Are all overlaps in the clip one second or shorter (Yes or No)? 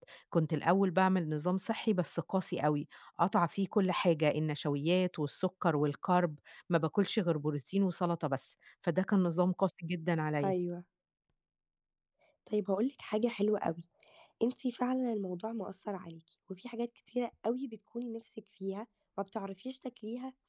Yes